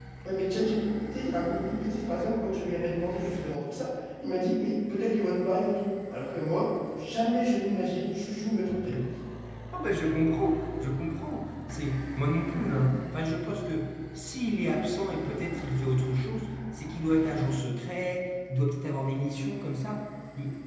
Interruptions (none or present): none